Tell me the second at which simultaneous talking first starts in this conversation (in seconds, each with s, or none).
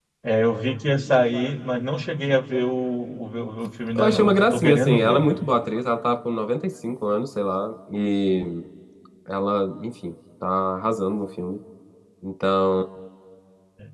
4.0 s